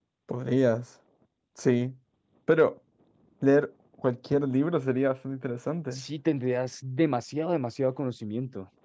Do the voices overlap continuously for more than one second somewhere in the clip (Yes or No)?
No